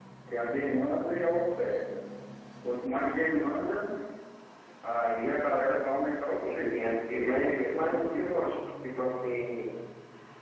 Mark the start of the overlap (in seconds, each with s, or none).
6.4 s